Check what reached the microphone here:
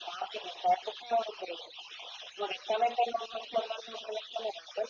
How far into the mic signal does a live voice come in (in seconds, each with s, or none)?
none